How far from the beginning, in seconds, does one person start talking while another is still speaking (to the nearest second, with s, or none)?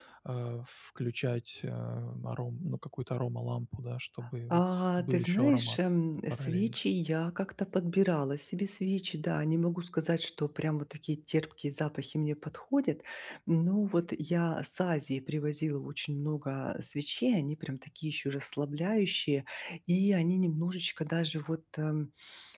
5 s